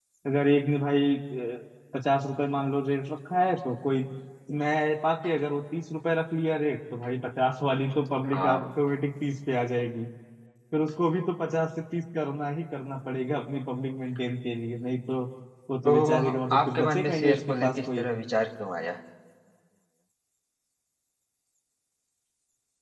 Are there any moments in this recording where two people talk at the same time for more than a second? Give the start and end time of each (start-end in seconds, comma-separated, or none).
16.6-18.1